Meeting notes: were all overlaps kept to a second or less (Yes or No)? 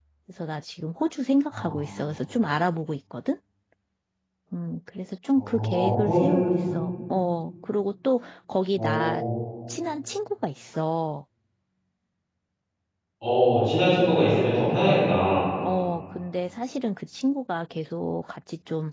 No